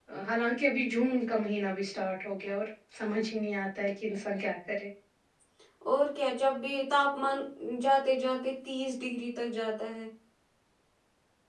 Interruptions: none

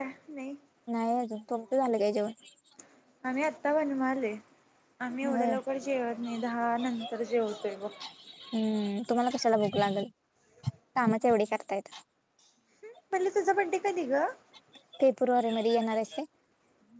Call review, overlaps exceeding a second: none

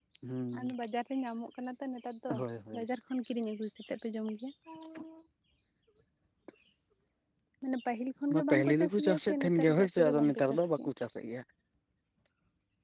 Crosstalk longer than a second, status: present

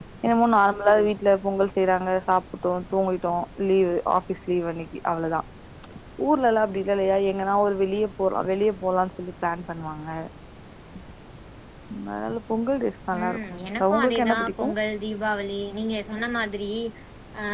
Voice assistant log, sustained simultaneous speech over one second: present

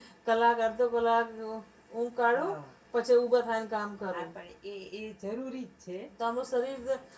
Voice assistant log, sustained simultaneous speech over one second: none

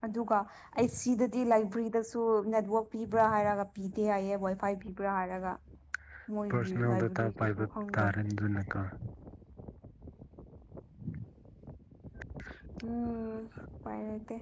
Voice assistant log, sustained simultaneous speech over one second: present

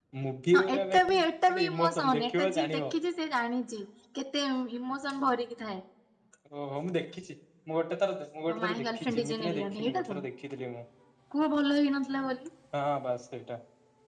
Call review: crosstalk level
present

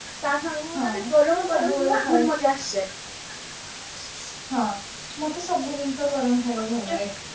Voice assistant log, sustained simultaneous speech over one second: present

